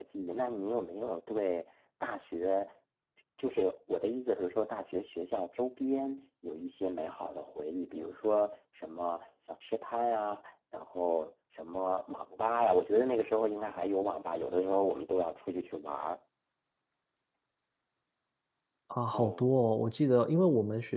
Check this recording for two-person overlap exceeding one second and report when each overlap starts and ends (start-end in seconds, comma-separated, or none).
none